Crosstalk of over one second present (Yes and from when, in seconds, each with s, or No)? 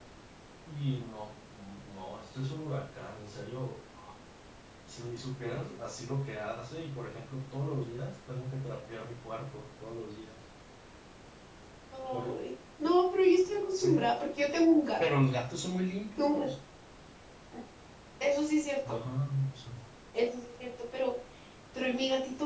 No